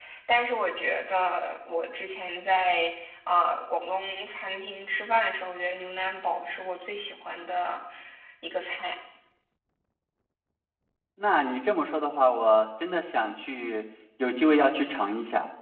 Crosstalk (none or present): none